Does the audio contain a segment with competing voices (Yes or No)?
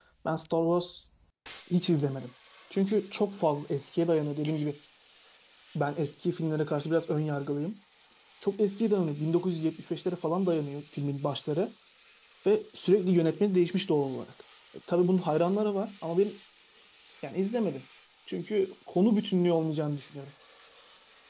No